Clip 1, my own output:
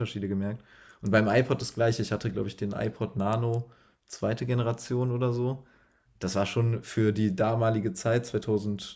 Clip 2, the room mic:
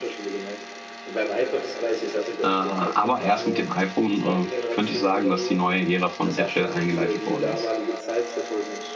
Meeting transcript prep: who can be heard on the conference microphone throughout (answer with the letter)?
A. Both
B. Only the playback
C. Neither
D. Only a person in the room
A